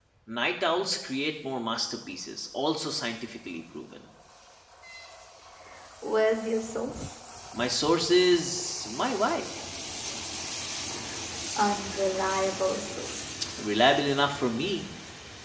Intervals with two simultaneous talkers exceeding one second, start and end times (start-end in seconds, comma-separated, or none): none